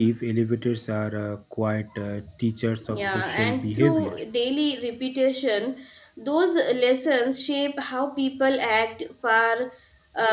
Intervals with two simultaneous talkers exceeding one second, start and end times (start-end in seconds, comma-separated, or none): 2.9-4.1